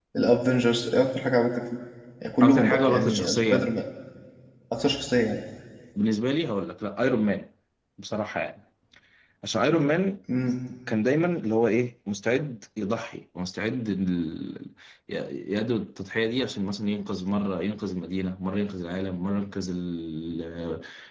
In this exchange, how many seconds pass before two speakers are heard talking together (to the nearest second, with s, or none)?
2 s